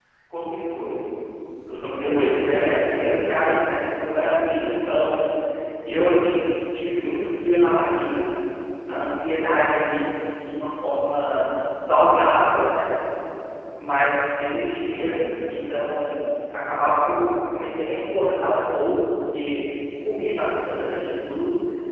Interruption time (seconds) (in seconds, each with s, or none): 1.9 s